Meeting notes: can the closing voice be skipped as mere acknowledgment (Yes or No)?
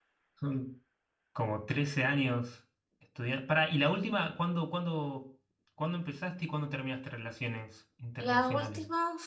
No